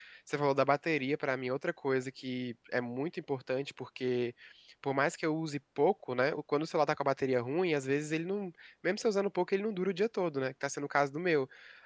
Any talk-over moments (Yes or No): No